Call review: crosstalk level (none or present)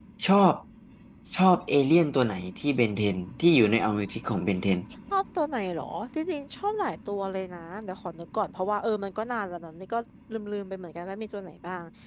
none